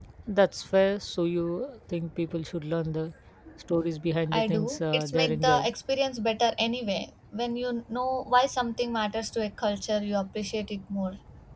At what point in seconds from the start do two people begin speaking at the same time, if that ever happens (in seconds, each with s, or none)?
4.3 s